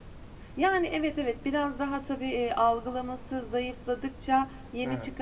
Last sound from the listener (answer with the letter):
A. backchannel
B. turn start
A